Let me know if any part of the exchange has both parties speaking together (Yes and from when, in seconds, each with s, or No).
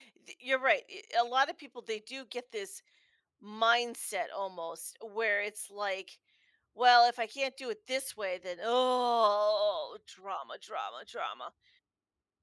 No